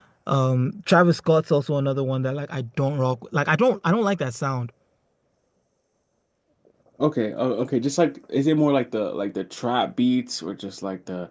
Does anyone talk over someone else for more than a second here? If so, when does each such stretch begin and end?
none

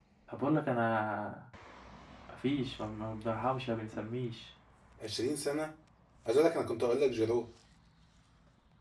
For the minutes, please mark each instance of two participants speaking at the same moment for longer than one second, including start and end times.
none

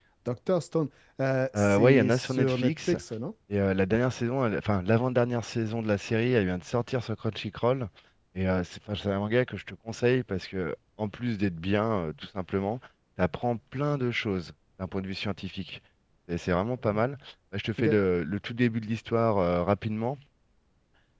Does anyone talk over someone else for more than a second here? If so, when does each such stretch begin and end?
1.6-2.9

